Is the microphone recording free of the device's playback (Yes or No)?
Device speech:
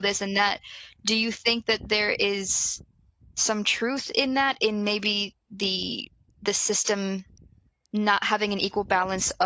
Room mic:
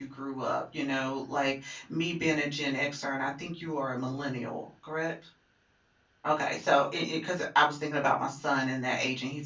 Yes